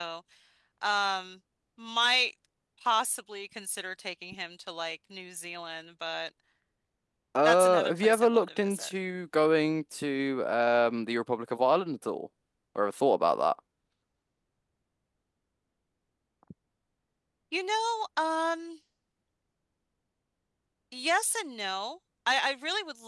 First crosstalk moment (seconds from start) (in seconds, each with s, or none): 7.4 s